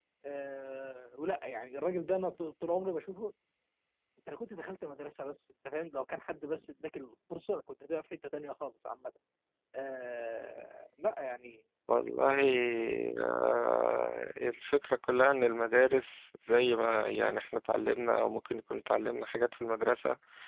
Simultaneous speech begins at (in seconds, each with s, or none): none